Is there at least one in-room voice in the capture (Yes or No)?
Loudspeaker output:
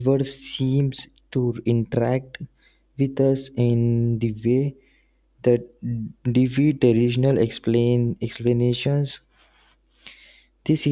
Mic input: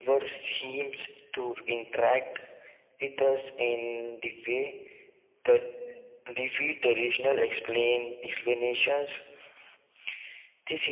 No